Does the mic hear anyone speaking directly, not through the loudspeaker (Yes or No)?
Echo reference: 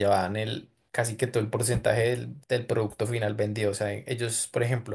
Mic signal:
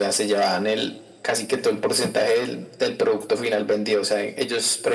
No